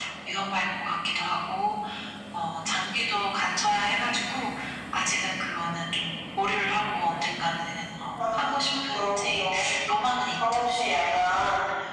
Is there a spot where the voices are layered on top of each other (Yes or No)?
Yes